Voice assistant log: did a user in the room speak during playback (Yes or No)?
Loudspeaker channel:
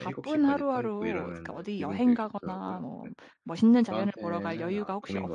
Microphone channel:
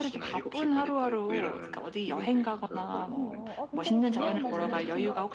Yes